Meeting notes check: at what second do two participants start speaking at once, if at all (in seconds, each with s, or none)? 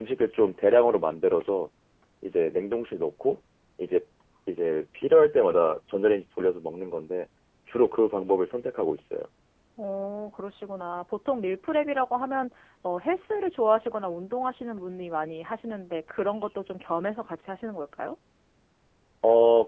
none